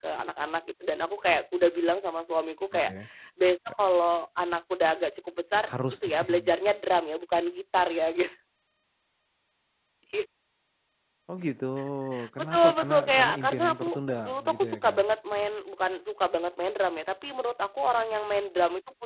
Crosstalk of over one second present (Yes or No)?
Yes